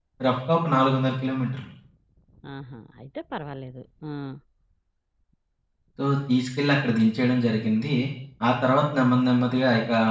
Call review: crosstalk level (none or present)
none